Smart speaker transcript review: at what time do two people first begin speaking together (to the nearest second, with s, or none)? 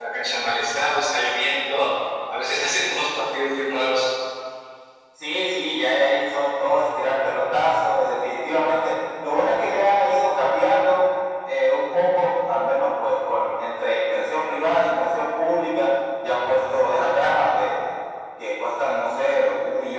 none